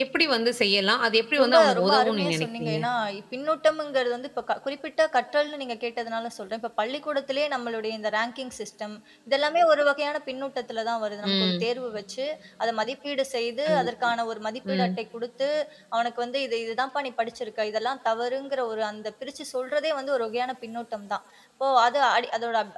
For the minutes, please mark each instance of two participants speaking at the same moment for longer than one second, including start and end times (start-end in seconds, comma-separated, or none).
1.4-2.8